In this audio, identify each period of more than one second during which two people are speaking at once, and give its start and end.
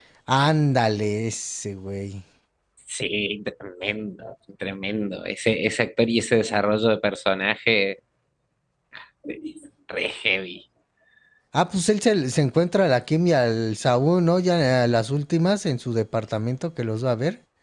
none

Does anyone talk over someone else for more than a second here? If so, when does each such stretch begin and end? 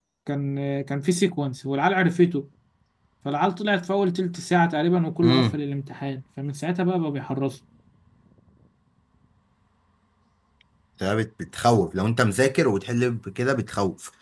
none

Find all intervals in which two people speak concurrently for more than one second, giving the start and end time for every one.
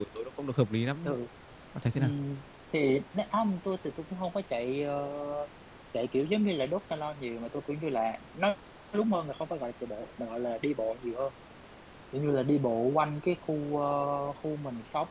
none

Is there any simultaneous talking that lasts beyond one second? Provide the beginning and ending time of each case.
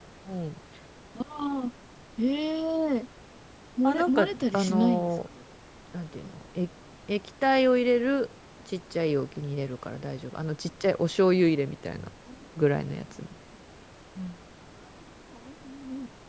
3.8-5.1

